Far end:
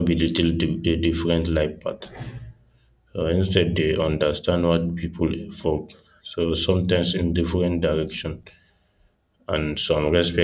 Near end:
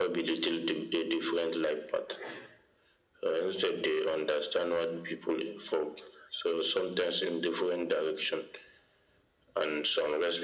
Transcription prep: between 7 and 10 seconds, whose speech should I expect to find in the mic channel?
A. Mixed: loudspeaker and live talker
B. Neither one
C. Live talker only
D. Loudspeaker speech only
D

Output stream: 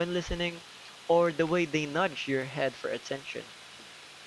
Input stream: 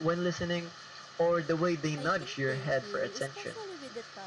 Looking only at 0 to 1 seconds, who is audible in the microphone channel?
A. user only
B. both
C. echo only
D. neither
C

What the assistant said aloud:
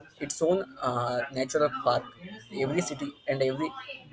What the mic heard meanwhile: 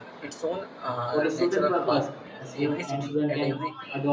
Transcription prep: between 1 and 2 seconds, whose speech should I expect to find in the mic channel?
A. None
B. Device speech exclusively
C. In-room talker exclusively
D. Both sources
D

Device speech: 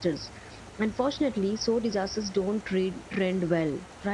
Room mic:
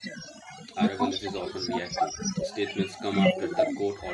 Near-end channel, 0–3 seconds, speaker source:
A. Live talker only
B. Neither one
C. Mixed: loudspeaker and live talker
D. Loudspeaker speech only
C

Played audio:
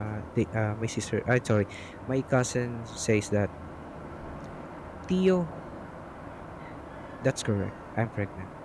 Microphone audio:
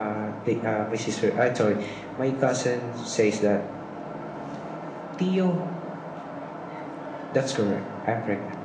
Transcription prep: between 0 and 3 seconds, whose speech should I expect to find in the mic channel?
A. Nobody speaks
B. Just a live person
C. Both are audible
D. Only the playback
D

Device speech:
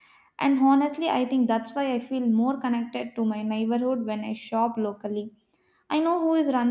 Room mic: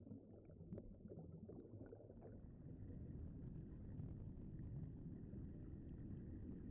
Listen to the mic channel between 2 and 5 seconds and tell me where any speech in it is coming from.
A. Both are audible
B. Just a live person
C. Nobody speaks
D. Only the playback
C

